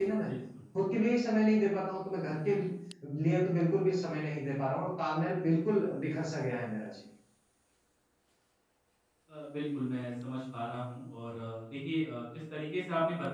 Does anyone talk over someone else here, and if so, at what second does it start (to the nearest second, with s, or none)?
none